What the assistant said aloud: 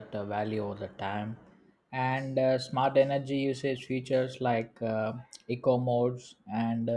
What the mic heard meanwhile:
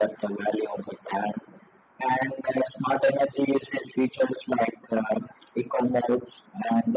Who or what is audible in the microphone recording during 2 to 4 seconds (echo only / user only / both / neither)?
echo only